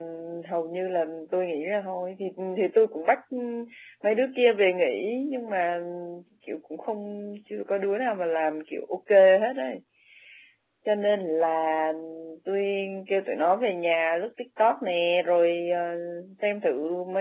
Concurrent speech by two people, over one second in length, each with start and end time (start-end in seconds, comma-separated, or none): none